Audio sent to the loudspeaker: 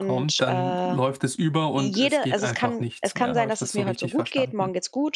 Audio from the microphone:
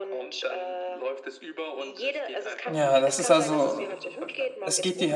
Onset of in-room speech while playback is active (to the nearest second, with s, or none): 3 s